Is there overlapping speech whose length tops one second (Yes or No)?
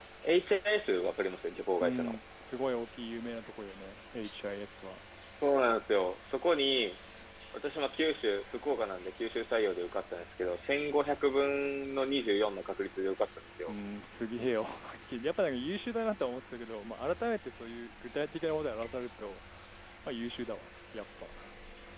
No